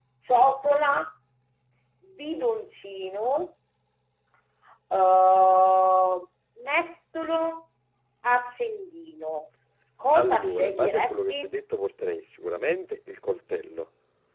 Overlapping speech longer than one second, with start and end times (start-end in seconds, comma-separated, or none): 10.1-11.5